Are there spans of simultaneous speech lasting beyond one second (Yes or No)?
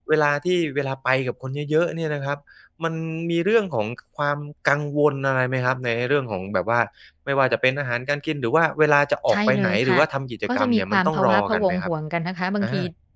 Yes